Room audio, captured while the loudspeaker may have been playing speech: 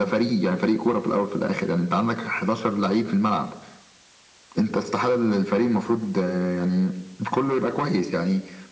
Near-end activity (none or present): none